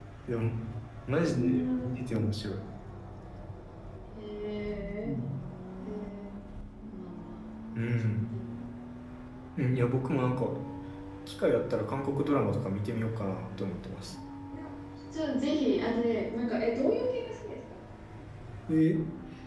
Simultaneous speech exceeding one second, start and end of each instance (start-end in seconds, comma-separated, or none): 1.1-2.3